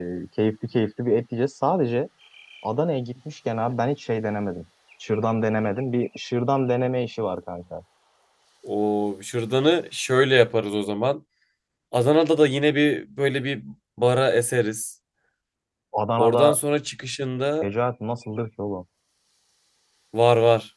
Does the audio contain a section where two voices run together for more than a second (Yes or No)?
No